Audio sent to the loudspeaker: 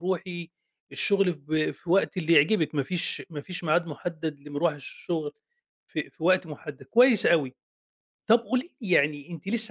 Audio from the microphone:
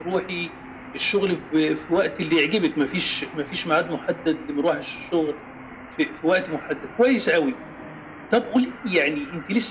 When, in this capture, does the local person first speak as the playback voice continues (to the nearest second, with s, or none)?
none